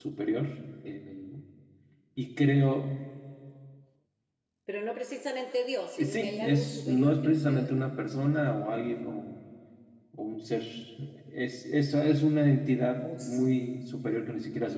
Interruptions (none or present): present